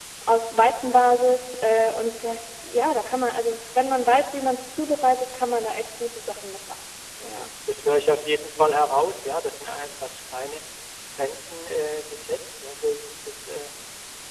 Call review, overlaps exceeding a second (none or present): none